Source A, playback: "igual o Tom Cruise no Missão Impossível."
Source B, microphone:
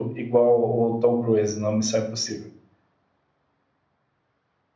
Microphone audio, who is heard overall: echo only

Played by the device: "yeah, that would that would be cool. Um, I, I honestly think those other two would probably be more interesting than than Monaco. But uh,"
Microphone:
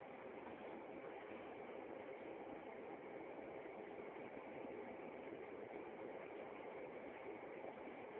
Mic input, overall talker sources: neither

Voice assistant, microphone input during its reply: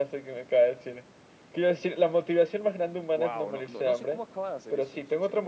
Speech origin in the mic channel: both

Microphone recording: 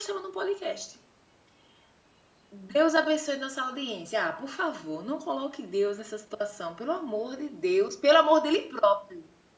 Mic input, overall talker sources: user only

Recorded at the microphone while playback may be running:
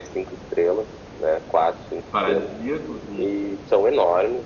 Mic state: both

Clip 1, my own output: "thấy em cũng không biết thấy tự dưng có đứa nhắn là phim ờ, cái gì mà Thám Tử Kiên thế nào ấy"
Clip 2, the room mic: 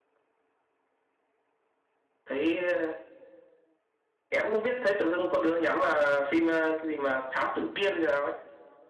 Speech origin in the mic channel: echo only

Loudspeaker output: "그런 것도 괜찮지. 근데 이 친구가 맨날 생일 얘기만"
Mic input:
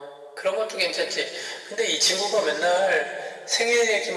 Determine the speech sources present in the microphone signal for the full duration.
echo only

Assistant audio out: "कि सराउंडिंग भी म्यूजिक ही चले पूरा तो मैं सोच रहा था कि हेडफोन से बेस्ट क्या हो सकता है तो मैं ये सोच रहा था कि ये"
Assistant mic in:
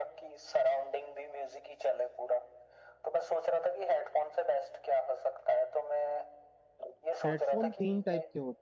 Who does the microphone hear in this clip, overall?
both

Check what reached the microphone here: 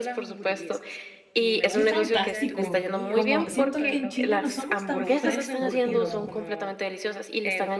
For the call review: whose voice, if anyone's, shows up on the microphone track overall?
both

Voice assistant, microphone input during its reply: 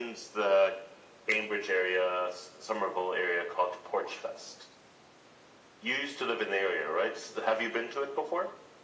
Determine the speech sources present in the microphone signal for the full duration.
echo only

